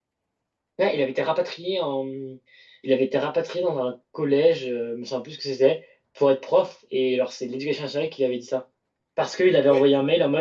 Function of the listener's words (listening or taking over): listening